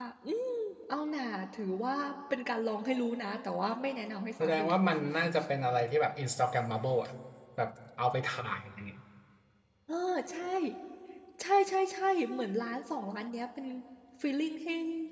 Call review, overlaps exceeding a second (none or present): none